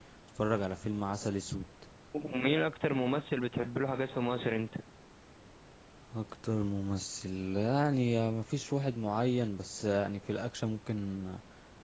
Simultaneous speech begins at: none

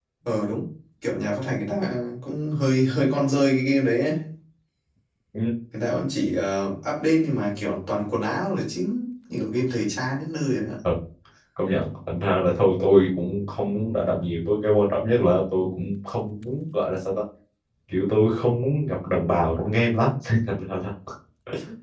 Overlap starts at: none

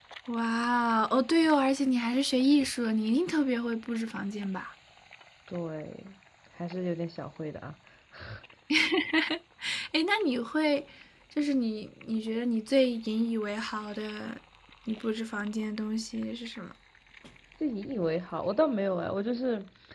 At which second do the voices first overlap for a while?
none

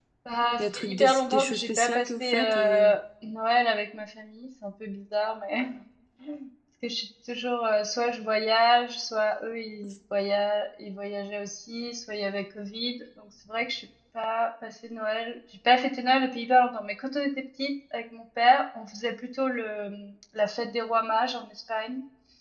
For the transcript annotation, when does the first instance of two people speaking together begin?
0.6 s

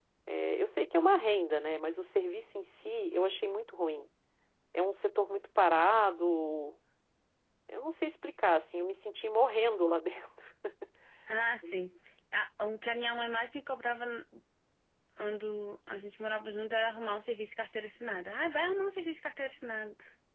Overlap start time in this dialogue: none

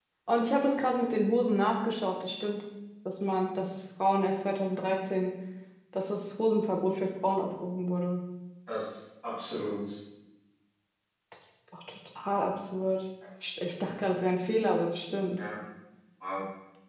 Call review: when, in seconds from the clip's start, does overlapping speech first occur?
none

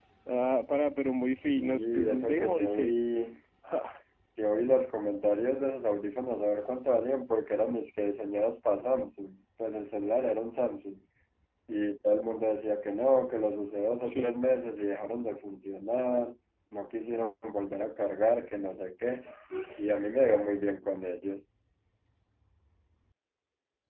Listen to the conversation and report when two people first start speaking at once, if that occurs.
1.5 s

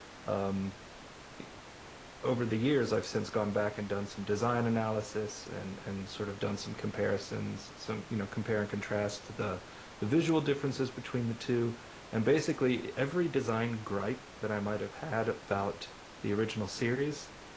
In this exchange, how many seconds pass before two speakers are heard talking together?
none

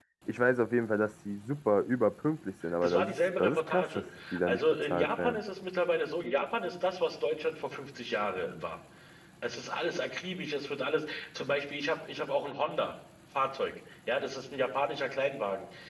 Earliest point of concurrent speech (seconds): 2.6 s

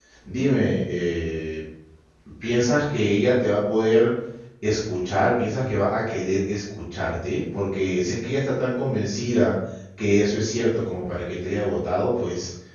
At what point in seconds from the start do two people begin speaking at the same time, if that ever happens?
none

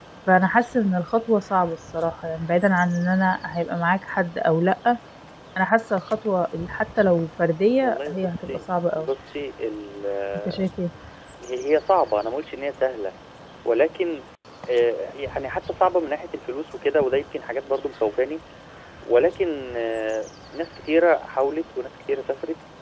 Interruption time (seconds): 7.8 s

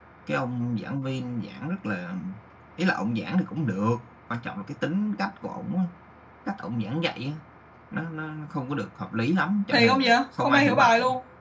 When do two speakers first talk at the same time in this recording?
9.7 s

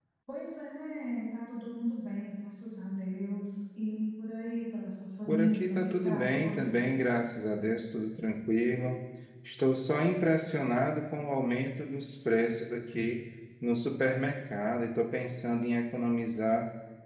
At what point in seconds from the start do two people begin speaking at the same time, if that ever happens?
5.3 s

